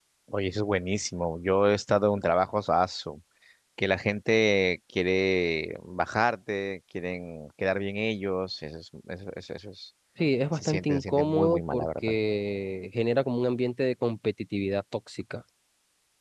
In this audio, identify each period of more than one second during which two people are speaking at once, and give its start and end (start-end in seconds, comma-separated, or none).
10.5-12.1